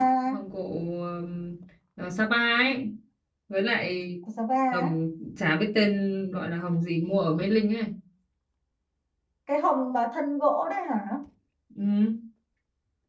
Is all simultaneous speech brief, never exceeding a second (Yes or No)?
Yes